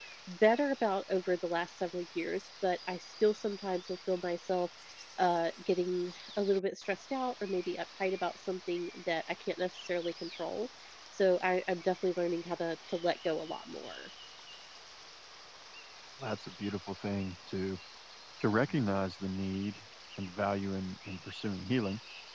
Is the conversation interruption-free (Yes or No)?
Yes